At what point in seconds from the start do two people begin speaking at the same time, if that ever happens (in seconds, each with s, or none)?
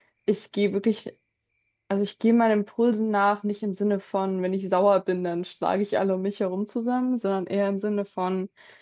none